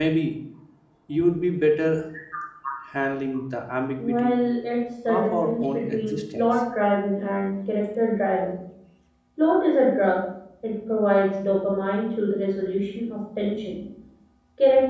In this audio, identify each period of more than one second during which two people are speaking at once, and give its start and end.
5.1-6.5

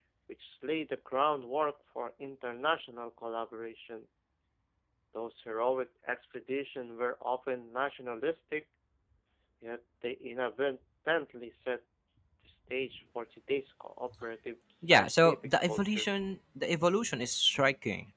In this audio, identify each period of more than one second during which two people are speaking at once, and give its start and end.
14.8-16.1

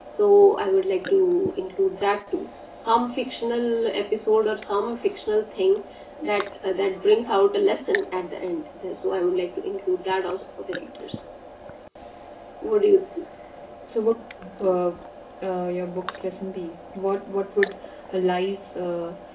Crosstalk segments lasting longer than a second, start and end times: none

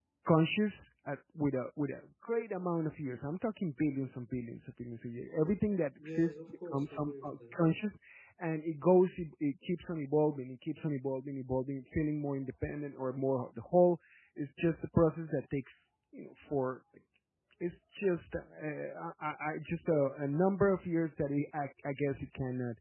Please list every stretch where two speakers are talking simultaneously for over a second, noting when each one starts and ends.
6.0-7.5

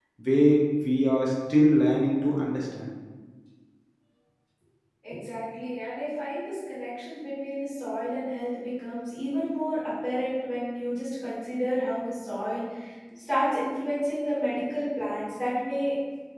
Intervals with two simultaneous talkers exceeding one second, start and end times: none

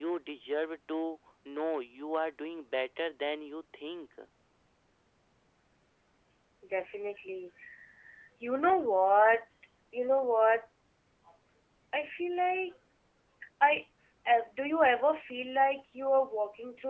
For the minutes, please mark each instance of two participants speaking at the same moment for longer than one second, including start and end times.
none

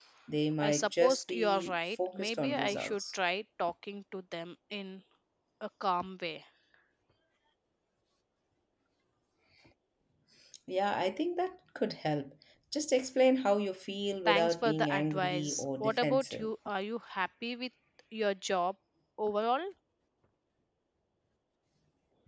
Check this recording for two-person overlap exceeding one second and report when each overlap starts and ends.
0.6-3.0, 14.2-16.5

